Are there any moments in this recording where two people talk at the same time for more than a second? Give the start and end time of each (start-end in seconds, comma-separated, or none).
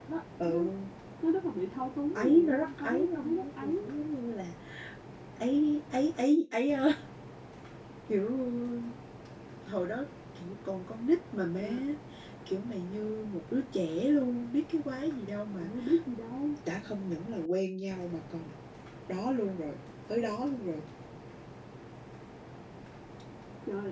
2.1-3.9